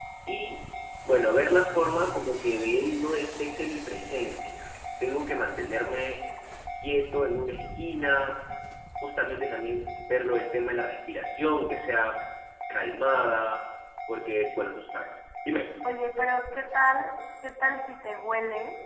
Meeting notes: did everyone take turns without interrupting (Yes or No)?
Yes